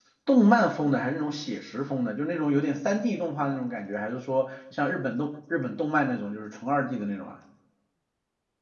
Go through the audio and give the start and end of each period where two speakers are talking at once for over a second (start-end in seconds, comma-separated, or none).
none